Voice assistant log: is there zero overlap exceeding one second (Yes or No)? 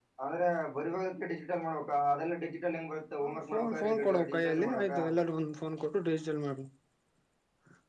No